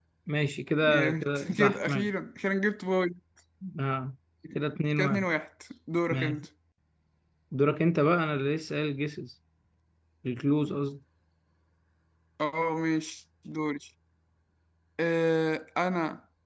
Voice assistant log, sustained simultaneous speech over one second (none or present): present